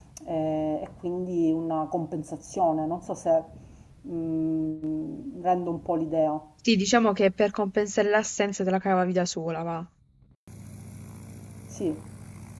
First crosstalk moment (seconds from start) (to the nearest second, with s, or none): none